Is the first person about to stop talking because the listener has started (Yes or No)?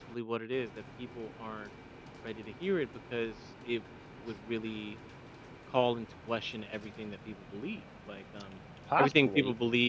No